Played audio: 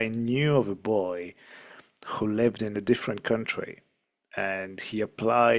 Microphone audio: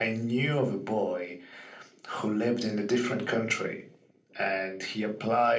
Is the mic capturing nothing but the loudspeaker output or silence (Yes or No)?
Yes